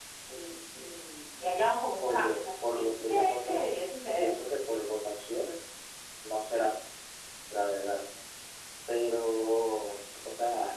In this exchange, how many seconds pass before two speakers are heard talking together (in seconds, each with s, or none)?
2.0 s